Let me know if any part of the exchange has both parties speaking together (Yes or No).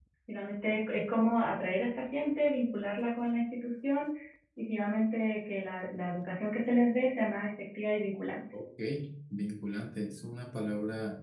No